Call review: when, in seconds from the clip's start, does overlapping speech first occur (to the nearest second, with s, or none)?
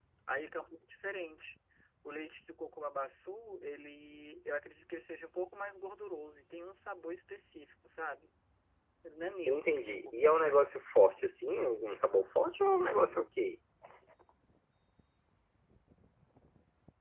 9 s